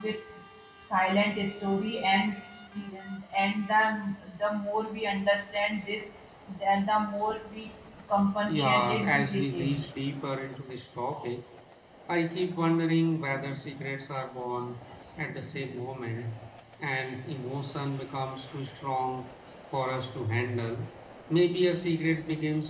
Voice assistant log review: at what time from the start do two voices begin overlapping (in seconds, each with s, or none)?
8.5 s